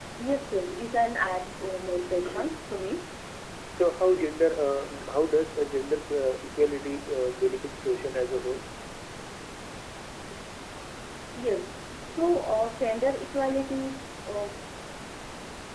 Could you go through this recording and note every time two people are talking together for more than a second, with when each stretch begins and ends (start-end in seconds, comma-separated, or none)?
none